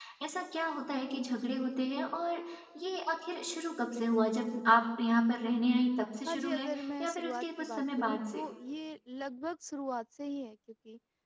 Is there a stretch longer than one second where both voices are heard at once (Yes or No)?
Yes